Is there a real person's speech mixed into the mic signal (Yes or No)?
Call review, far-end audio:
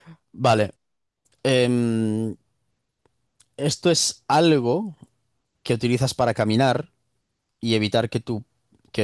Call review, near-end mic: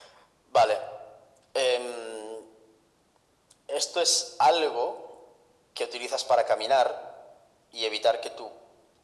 No